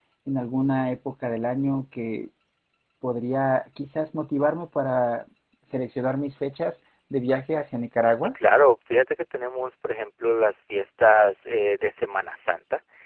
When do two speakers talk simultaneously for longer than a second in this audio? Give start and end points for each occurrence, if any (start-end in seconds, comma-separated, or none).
none